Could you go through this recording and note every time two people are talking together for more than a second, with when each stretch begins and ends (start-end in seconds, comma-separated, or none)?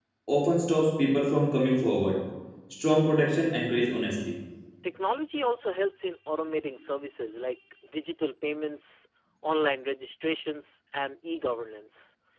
none